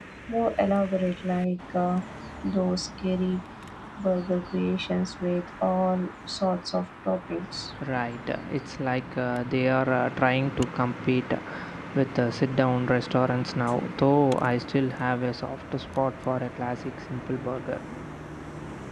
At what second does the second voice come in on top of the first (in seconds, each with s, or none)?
none